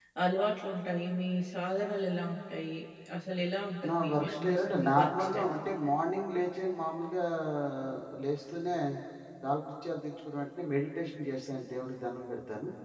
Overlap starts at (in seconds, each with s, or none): 3.9 s